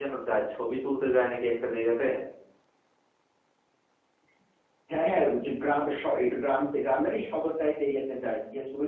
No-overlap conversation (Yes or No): Yes